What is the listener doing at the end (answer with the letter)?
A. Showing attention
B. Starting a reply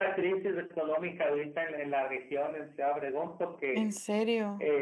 A